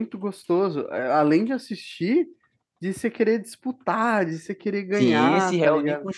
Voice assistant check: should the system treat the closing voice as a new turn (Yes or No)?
Yes